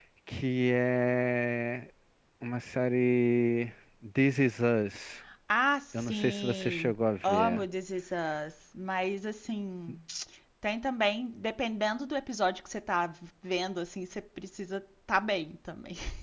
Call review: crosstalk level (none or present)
present